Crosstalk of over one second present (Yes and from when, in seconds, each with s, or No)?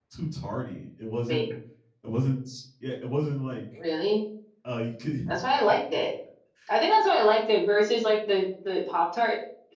No